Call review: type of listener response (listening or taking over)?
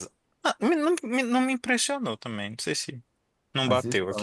taking over